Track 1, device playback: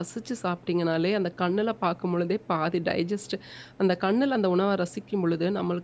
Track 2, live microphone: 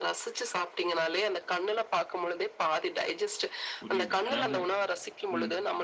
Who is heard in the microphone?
both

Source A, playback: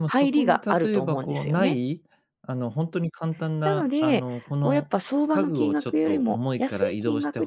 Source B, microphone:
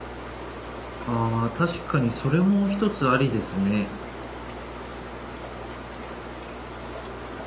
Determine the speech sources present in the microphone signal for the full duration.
user only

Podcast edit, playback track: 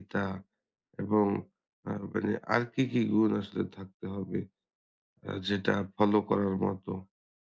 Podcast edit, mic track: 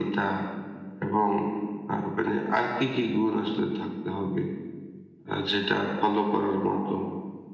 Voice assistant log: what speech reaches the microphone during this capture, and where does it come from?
echo only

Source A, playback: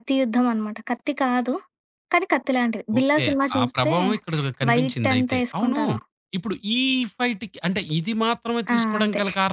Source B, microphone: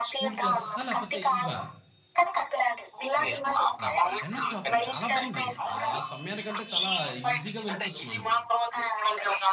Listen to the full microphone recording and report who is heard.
both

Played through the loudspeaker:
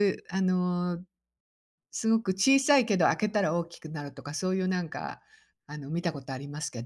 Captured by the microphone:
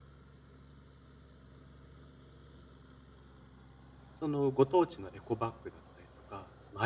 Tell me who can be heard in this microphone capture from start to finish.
user only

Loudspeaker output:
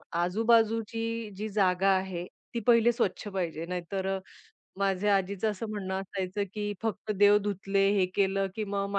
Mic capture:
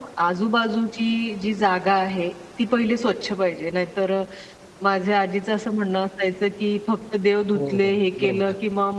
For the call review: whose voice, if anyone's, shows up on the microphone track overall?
both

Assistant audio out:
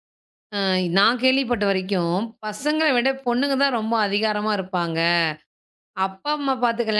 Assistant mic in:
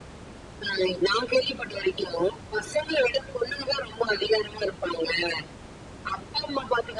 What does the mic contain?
echo only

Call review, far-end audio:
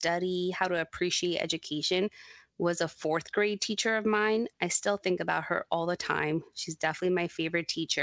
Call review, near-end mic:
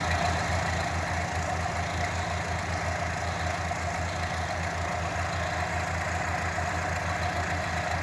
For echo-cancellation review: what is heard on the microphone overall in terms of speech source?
neither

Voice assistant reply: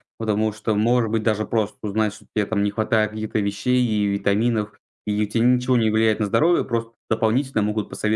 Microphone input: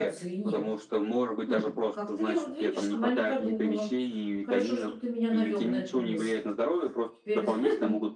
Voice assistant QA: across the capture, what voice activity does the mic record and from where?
both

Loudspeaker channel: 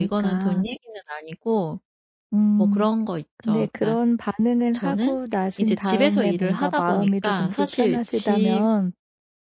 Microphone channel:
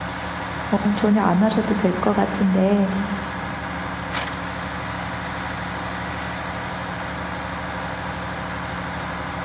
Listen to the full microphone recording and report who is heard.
user only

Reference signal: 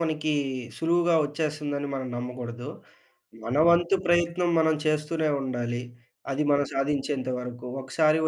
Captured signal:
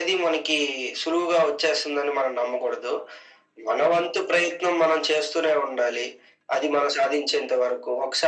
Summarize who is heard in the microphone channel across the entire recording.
echo only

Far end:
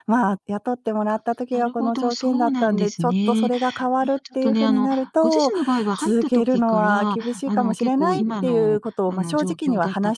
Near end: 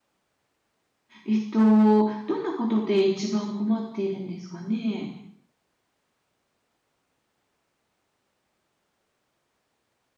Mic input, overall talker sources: user only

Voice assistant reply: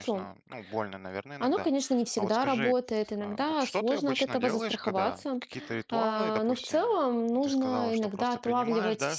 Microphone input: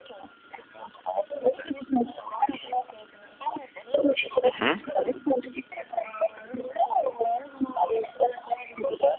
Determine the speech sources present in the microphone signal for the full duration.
both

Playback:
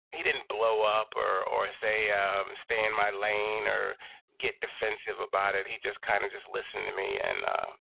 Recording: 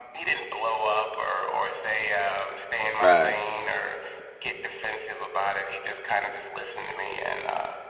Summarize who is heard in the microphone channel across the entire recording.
both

